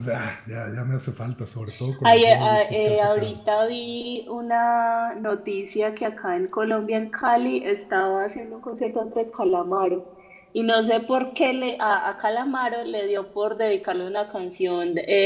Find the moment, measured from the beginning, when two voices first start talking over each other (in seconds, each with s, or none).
2.0 s